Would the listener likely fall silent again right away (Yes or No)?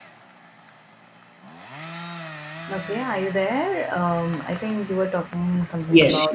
No